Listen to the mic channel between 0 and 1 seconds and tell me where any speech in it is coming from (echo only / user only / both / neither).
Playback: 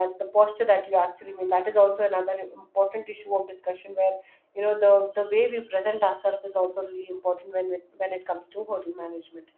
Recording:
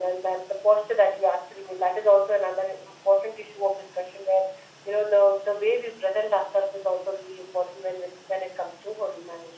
echo only